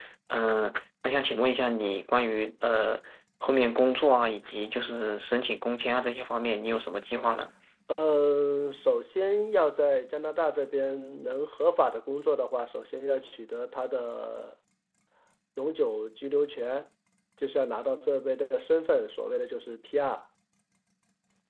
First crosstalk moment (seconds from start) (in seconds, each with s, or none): none